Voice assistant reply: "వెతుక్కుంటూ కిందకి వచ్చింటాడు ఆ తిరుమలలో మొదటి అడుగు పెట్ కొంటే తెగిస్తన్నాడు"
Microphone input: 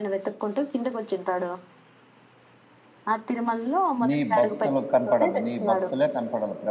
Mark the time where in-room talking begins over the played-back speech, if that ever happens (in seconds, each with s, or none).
4.1 s